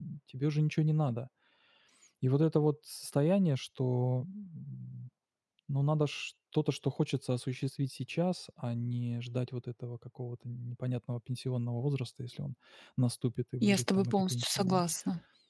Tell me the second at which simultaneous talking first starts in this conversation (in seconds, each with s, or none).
13.6 s